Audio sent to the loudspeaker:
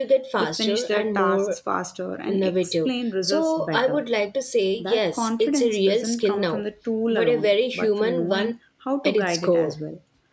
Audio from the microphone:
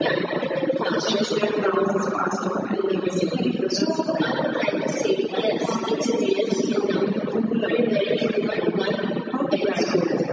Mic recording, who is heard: echo only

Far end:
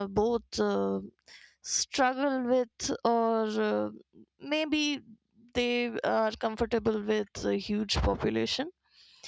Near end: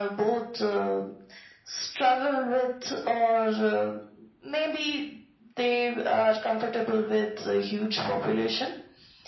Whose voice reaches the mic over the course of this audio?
echo only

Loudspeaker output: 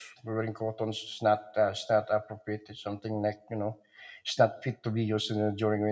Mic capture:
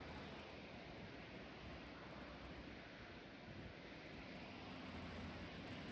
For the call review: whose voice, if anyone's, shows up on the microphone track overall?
neither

